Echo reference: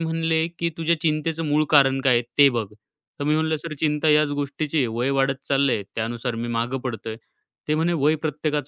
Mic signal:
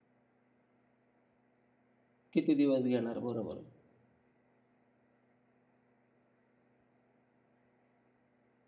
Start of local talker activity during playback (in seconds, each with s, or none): 2.3 s